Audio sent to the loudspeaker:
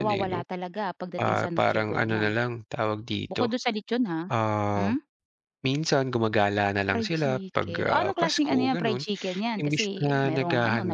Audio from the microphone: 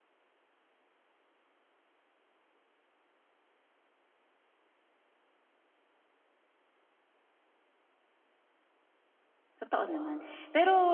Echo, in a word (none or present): none